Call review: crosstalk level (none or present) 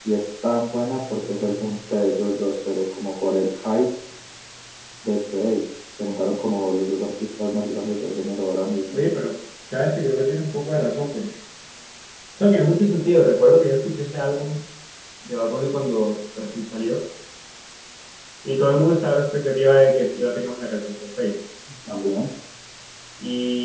none